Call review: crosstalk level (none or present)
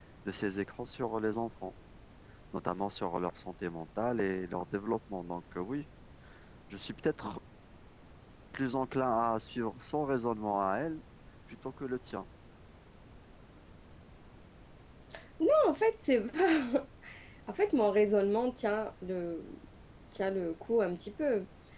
none